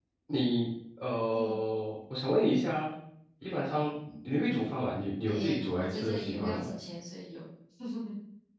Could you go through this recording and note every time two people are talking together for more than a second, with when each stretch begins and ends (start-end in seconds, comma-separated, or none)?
5.3-6.7